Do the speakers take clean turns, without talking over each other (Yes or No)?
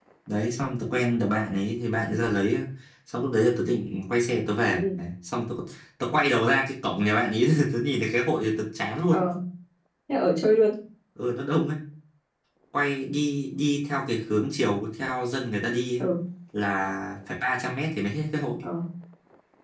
Yes